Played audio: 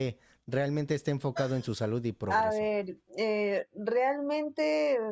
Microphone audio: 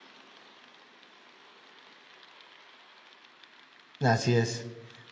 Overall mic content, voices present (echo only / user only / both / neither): user only